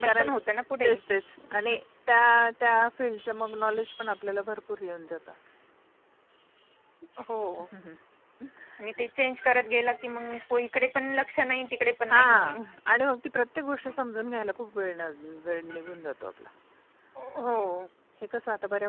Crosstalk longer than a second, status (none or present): none